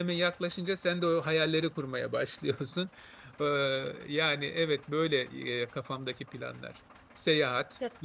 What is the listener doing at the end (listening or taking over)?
listening